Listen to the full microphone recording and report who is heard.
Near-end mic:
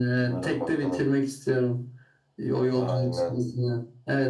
echo only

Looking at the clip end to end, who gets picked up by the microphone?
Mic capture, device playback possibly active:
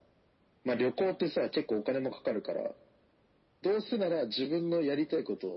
echo only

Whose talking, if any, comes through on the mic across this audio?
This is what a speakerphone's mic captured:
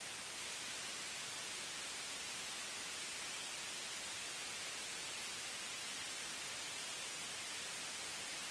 neither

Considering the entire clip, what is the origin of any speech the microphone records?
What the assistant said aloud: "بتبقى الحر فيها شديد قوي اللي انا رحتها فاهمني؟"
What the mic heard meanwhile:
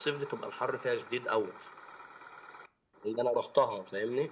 echo only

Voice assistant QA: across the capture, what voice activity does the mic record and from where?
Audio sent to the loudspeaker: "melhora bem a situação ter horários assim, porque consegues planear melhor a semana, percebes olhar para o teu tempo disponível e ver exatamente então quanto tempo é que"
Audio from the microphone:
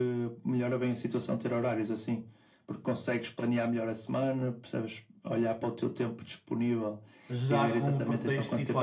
both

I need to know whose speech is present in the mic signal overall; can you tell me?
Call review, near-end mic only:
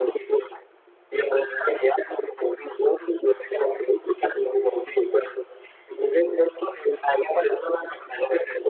echo only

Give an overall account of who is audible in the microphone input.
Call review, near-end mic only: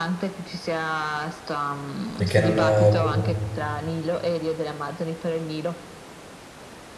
both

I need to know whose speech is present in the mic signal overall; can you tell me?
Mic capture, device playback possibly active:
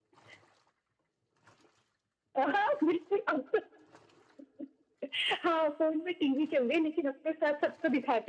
echo only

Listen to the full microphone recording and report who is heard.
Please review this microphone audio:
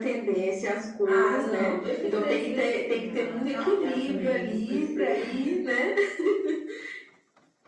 both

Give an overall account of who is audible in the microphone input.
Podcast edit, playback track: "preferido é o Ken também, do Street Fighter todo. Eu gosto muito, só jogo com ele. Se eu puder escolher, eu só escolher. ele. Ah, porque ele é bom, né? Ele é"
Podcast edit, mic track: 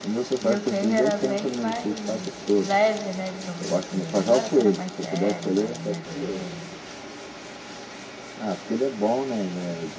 both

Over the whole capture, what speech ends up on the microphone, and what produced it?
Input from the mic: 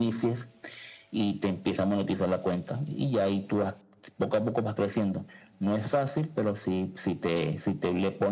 echo only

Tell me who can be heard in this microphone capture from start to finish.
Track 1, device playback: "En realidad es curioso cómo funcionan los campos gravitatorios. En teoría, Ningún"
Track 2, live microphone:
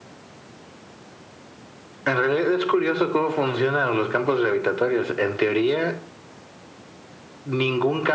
echo only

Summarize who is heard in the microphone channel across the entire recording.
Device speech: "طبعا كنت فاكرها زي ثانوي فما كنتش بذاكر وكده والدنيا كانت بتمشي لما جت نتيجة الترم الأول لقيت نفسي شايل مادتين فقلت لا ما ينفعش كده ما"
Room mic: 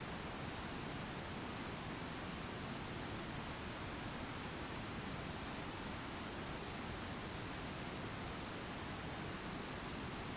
neither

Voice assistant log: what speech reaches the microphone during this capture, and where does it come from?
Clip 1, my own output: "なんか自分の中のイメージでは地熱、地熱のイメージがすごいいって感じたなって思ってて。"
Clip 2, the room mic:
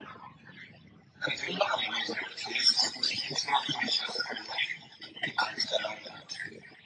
echo only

